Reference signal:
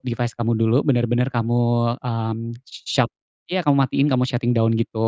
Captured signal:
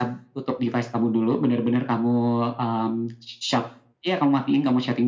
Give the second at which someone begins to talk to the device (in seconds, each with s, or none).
none